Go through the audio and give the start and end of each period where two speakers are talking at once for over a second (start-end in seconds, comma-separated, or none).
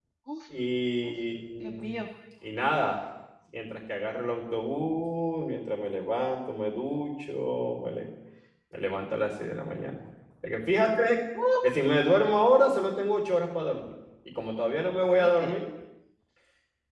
none